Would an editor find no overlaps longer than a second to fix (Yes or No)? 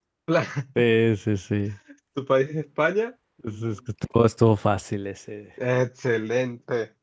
Yes